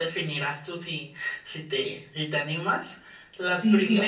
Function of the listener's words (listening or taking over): taking over